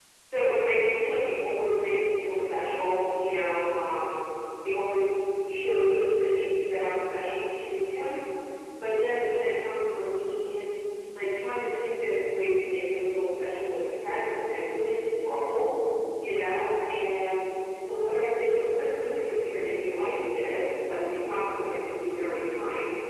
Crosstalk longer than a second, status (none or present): present